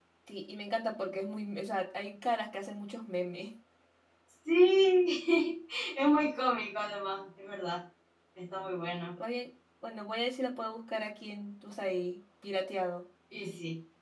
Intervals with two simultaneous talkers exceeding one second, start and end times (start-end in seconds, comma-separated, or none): none